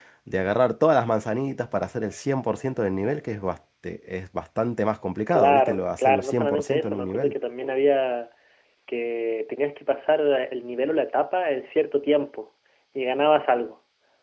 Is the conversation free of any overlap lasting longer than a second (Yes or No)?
No